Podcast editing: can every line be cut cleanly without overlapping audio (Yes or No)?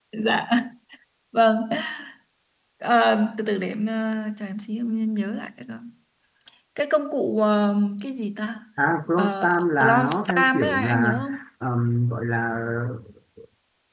No